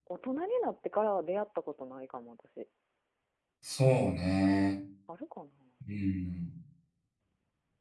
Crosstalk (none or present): none